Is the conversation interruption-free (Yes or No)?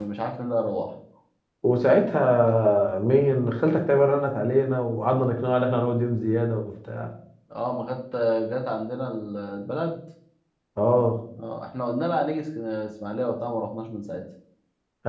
Yes